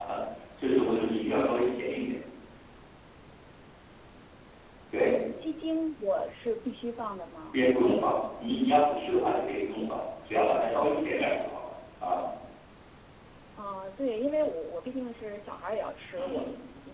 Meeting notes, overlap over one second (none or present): none